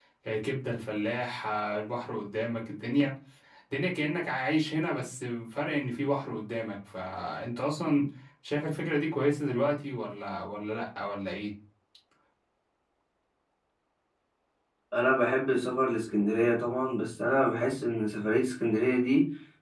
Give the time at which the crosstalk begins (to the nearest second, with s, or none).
none